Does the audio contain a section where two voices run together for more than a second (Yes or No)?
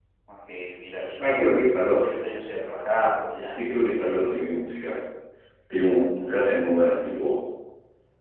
No